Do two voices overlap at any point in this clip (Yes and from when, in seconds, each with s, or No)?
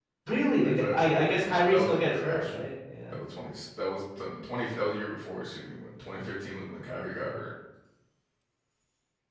Yes, from 0.6 s